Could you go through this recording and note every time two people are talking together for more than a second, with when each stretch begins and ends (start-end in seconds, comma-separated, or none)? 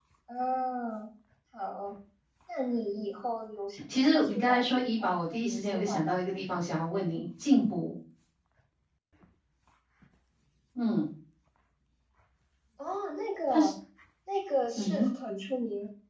3.9-6.4